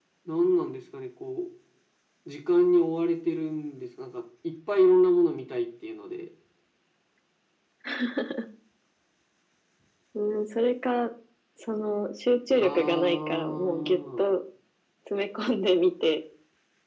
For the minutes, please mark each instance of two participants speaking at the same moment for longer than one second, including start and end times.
12.5-14.3

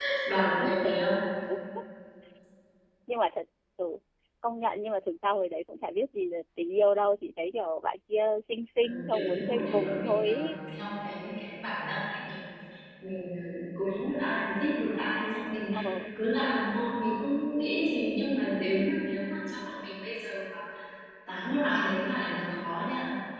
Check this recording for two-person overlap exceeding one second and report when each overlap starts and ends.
8.8-10.4

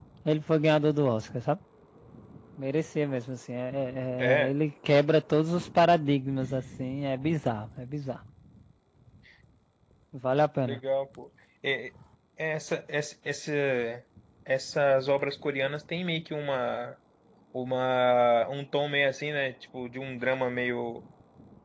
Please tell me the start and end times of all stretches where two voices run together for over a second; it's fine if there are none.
none

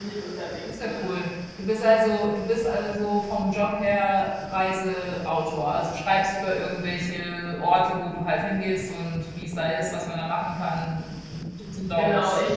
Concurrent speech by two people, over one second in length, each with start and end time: none

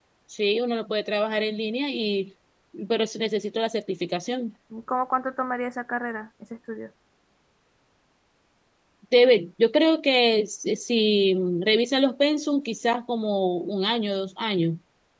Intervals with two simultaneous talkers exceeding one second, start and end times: none

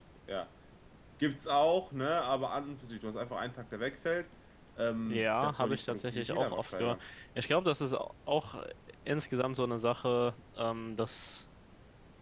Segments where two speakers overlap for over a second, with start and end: 5.1-7.0

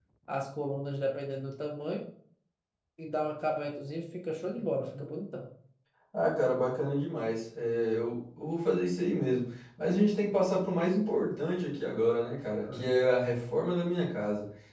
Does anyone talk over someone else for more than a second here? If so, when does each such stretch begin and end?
none

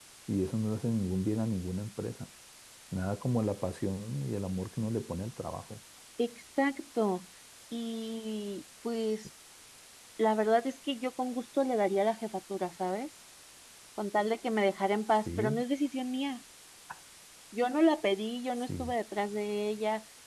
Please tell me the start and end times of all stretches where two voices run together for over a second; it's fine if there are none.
none

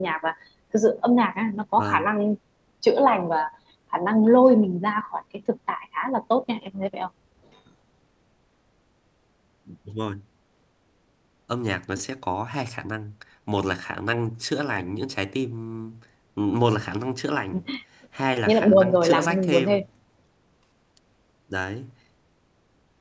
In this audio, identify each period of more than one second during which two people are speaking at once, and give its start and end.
18.5-19.8

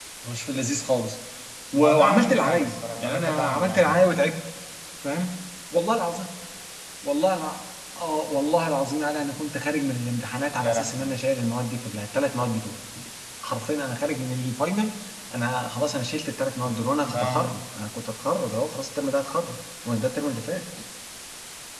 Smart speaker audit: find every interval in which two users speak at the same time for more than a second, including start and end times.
1.8-4.0

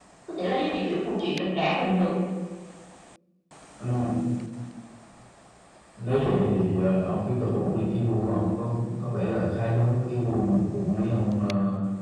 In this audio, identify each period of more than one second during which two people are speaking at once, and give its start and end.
none

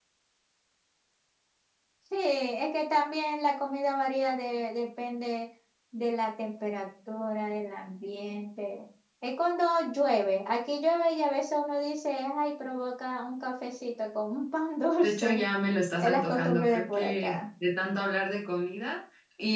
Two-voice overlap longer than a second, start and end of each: 16.0-17.4

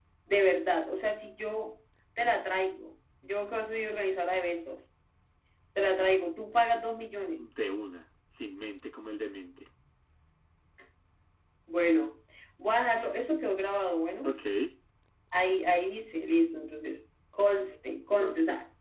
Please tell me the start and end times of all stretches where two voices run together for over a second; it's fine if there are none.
none

